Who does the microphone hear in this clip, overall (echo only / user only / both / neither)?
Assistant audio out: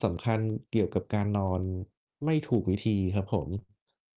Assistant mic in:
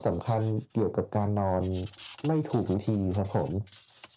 echo only